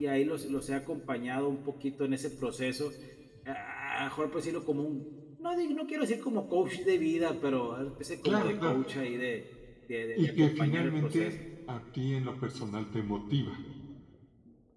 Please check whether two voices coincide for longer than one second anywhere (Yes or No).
Yes